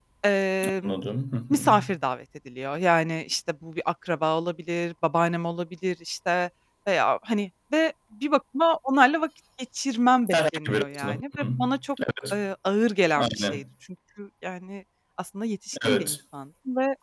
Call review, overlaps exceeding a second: present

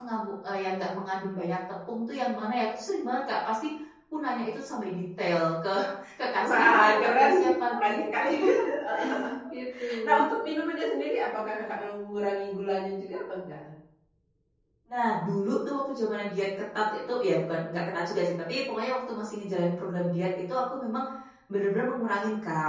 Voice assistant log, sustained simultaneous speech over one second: present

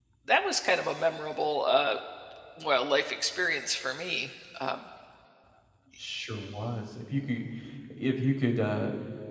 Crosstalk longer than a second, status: none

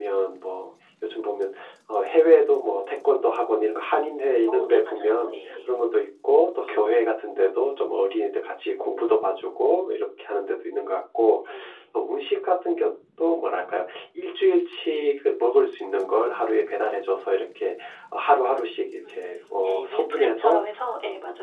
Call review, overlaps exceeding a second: present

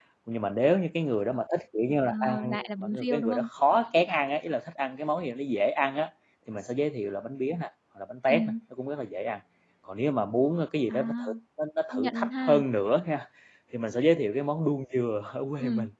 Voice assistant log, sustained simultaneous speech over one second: present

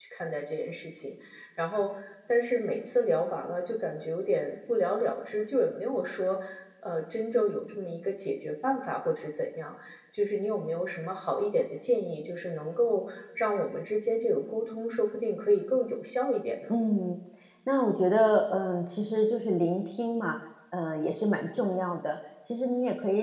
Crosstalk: none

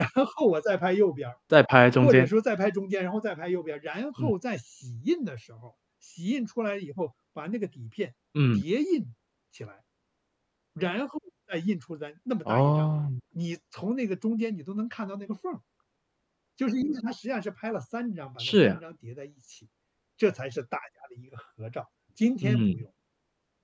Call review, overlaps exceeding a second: none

